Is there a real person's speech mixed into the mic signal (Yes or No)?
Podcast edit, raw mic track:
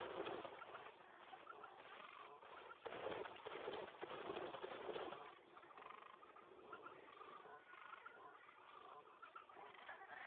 No